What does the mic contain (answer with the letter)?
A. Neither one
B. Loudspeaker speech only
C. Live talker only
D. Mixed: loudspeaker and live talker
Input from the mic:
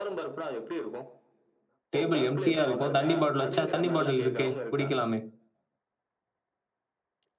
D